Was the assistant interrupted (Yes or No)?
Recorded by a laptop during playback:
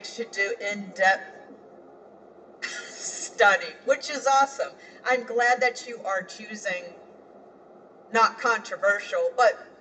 No